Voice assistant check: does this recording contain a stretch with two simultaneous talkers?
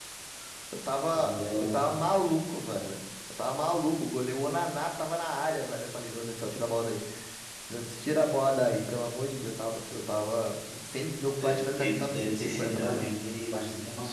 Yes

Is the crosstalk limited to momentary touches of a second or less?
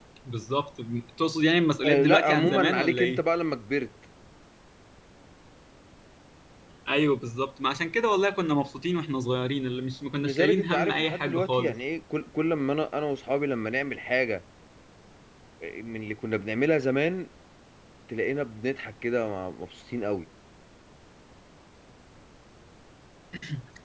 No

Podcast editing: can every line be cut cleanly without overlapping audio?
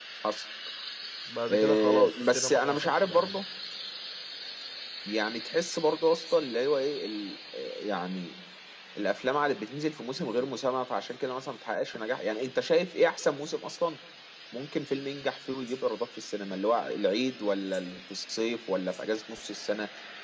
No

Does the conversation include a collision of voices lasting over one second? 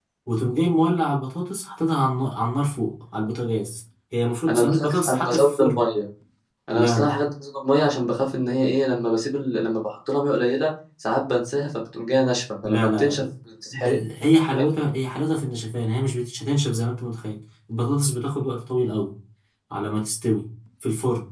Yes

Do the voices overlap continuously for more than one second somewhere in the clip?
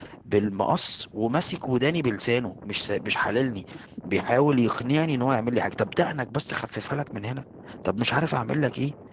No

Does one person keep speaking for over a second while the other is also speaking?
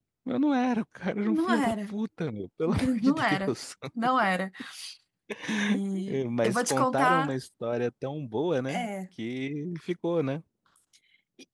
Yes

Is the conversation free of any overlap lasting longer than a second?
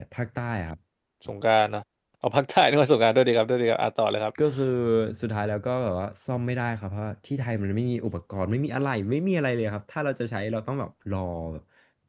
Yes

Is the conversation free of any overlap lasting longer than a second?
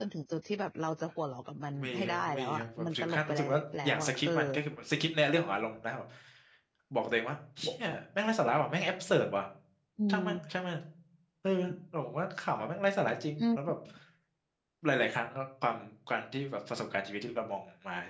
No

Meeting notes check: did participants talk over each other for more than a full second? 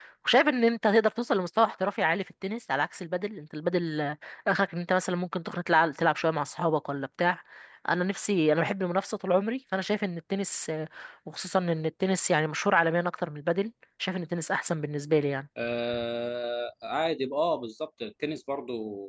No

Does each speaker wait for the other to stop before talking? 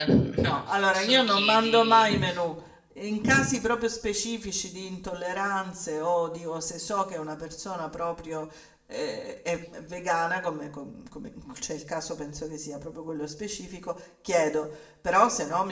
No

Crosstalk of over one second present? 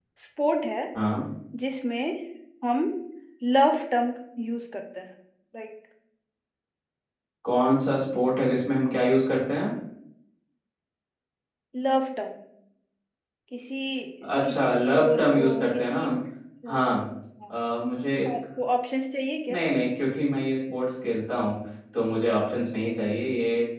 Yes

